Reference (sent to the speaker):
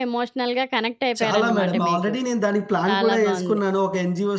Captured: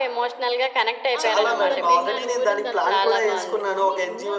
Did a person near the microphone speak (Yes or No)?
Yes